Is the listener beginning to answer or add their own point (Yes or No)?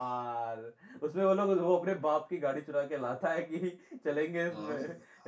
Yes